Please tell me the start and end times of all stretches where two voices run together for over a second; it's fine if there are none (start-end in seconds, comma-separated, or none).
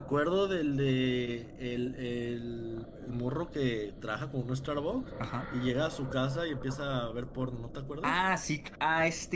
none